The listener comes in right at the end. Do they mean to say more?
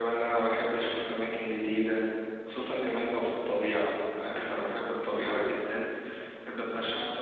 No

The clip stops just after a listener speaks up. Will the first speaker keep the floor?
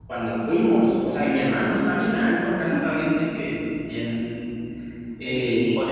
Yes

